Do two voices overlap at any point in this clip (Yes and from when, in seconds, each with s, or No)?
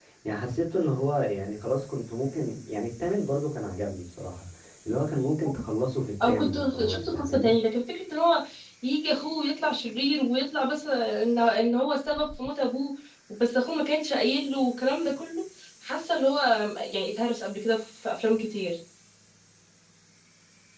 Yes, from 6.2 s